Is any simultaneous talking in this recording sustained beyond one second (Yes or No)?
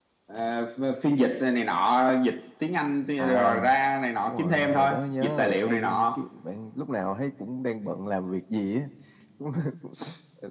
Yes